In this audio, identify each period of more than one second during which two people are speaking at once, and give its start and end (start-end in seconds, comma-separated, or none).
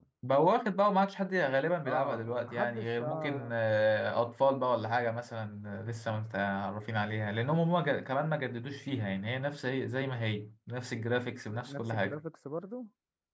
1.8-3.5